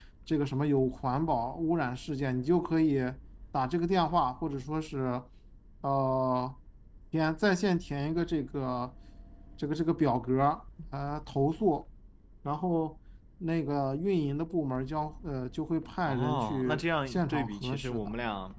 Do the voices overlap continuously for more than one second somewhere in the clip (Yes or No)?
Yes